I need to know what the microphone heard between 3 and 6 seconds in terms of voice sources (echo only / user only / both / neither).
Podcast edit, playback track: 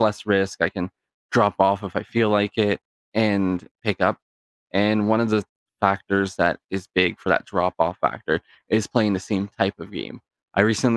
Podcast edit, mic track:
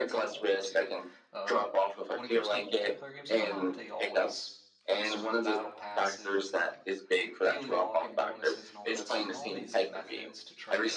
both